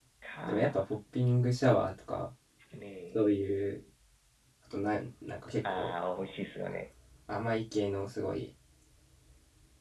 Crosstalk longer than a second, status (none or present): none